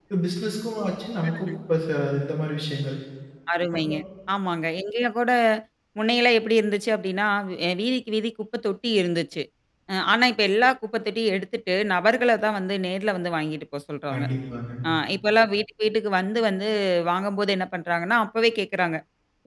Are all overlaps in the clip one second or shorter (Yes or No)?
Yes